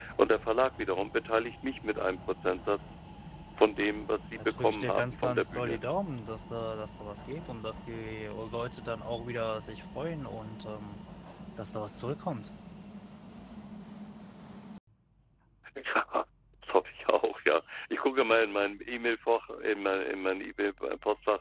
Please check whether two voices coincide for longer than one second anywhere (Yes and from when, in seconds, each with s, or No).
Yes, from 4.4 s